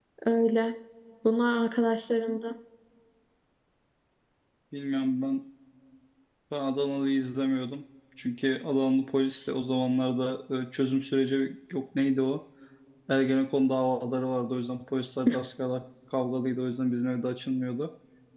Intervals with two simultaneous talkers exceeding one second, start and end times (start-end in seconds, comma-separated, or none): none